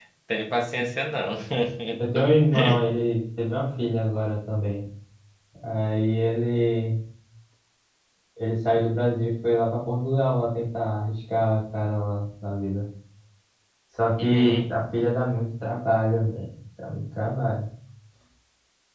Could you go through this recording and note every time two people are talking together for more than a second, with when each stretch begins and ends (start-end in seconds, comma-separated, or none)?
none